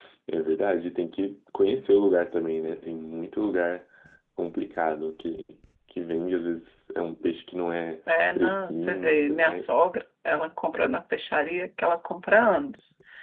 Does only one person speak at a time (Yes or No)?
No